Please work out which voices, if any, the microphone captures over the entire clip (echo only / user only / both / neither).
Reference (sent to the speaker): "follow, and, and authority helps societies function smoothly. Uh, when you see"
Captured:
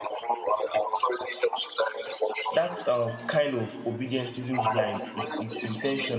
both